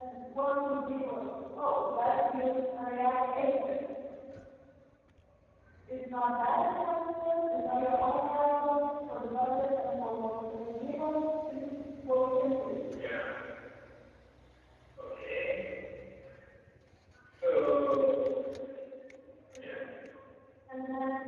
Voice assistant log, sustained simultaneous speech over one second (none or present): none